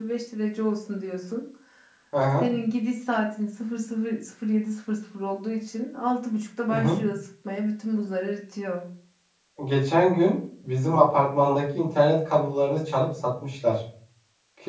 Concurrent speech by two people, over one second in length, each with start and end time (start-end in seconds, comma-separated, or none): none